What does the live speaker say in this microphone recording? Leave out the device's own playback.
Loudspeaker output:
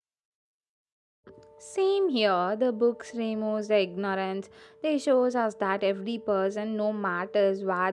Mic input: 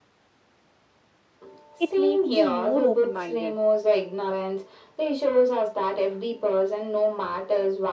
it makes me more open minded

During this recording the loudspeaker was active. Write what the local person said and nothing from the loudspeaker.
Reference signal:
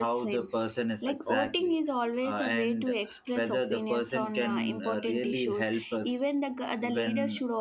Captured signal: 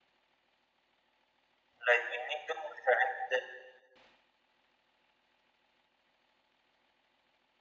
Like we need to select

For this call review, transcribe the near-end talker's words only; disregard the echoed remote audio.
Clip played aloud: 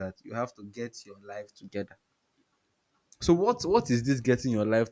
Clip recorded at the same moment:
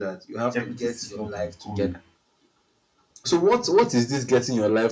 everything seems not to be going

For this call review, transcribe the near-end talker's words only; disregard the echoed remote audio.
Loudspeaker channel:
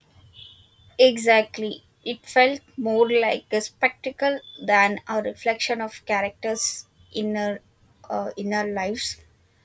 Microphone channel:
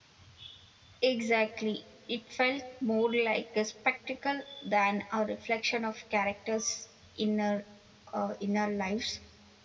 none

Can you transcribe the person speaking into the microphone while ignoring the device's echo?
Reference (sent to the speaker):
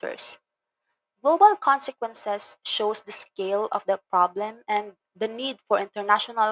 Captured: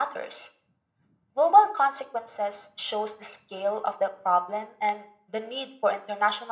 none

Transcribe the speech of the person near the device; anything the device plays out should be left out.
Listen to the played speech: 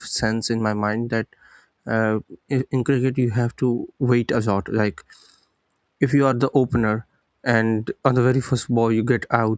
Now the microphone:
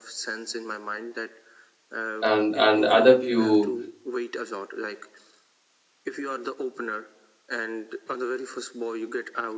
and and other few

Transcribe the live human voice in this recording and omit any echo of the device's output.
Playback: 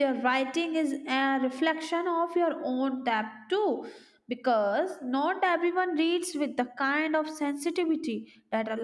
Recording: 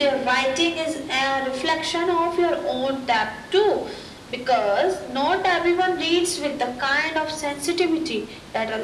none

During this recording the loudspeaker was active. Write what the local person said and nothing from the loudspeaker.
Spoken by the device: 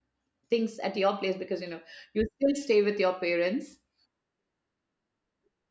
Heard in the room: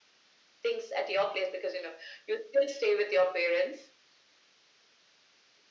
none

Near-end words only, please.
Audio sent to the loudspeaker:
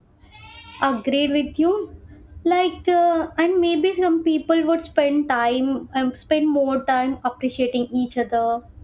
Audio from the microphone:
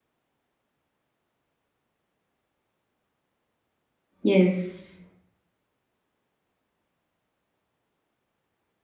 yes.

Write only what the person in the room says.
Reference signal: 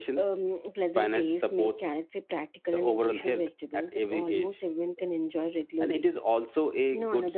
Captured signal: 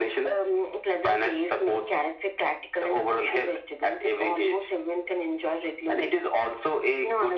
none

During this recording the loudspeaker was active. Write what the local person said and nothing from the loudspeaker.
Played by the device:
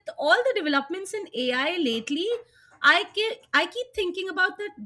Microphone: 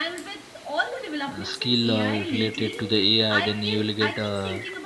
uh, skill uh, related to the AI then you will get uh,

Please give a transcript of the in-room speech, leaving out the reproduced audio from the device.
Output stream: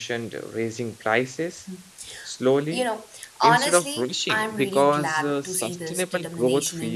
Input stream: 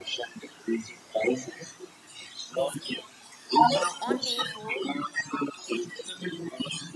basically. Uh, on day four,

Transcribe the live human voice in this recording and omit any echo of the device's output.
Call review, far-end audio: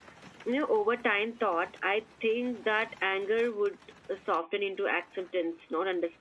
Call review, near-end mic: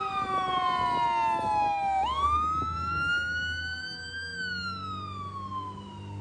none

